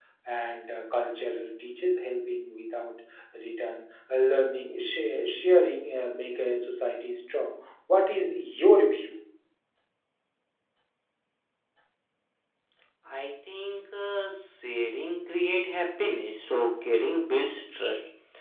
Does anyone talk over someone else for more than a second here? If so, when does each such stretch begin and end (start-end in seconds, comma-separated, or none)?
none